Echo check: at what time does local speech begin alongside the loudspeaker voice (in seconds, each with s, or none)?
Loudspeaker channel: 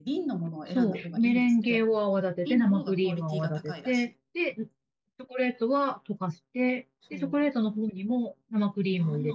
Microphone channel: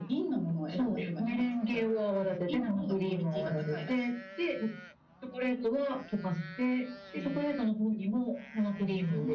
none